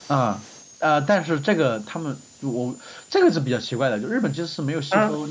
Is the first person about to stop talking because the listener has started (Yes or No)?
No